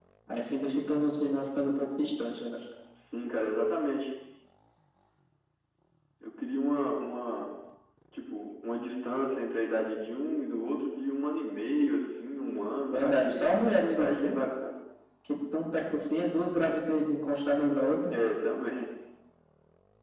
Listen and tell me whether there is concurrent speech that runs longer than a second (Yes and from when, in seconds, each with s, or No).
Yes, from 12.9 s